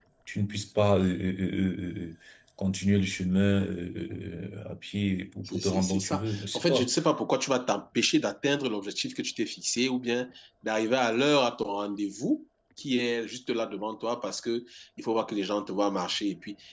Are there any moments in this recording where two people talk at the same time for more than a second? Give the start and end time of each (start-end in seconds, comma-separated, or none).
5.5-6.9